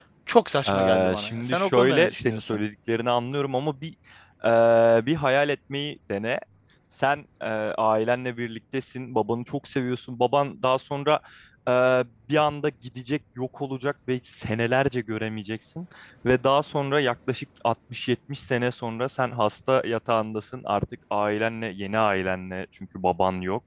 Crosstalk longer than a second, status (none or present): present